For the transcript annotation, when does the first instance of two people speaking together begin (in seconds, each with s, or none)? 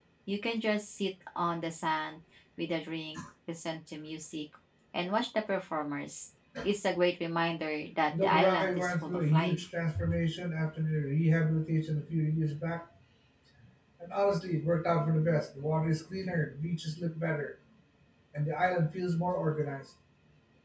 8.1 s